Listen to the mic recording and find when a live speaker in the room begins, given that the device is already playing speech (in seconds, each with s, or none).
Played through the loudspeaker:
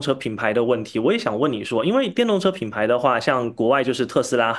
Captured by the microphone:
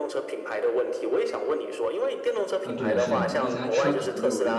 2.6 s